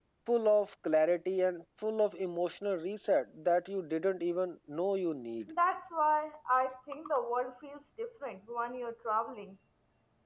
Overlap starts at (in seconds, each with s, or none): none